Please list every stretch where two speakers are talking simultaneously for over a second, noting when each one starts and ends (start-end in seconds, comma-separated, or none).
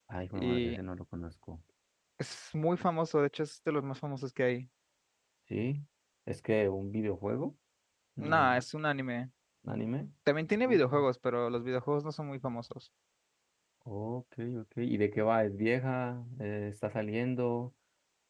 none